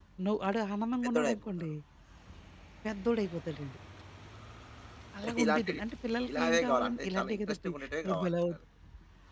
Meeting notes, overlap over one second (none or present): present